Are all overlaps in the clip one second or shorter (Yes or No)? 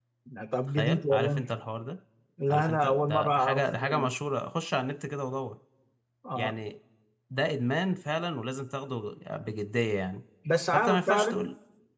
No